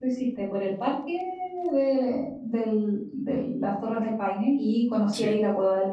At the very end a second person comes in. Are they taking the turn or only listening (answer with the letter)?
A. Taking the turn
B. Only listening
B